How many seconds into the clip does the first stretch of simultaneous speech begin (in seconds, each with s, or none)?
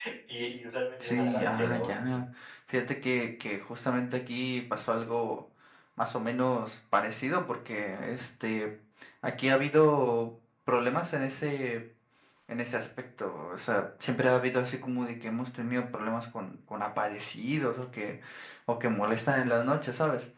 1.0 s